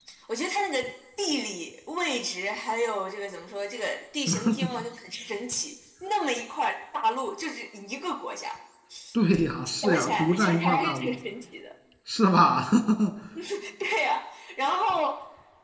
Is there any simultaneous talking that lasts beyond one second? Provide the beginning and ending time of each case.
9.8-11.2

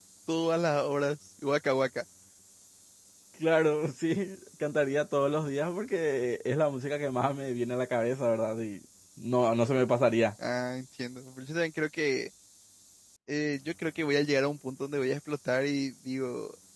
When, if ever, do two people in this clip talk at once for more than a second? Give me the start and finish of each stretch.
none

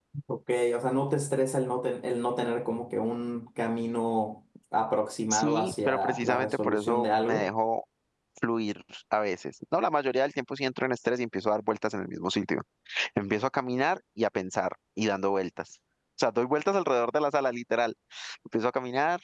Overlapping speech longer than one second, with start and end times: 5.3-7.5

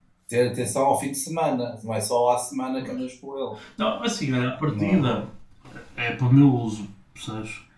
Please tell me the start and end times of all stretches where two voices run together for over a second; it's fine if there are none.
none

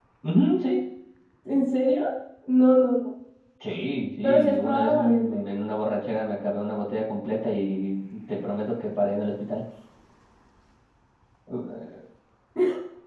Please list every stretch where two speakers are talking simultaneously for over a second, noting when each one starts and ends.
4.2-5.4

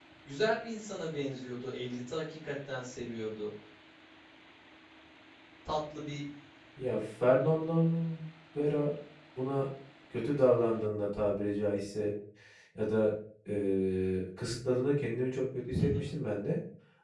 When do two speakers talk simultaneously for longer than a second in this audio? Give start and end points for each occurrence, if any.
none

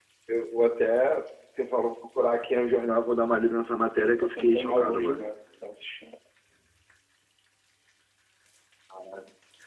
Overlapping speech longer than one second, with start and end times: 4.0-5.3

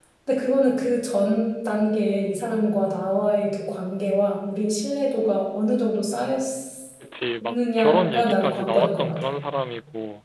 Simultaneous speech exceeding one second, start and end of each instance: 7.4-9.3

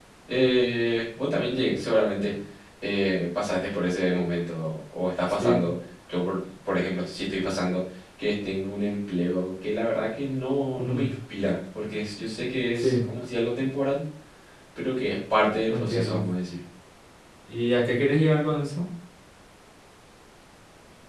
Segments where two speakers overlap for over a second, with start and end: none

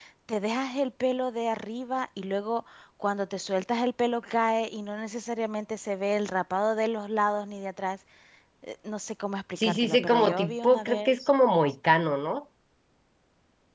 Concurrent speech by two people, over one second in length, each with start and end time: 9.6-11.3

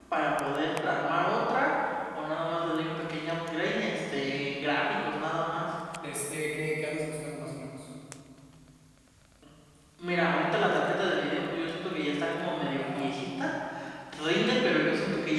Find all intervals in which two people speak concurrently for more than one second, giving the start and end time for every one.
none

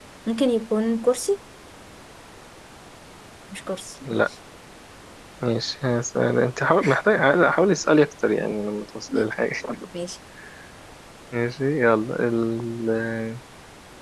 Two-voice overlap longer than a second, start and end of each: none

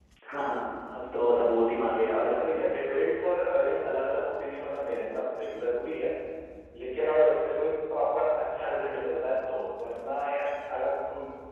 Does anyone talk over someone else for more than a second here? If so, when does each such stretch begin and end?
1.3-2.8

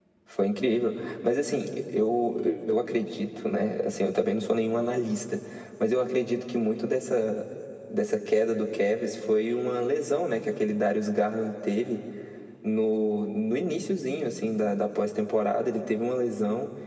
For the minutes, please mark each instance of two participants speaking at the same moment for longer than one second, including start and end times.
none

